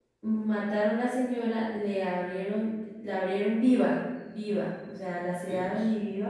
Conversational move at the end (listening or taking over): listening